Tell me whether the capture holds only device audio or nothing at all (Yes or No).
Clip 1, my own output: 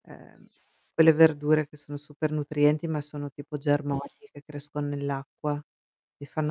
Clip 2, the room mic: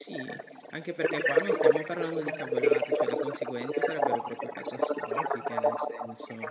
No